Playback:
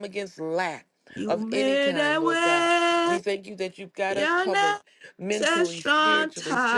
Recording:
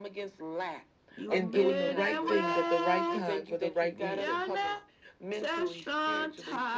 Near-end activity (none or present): present